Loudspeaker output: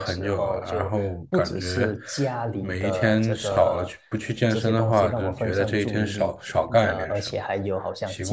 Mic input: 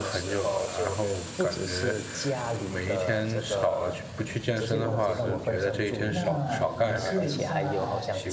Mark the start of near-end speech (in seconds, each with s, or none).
4.5 s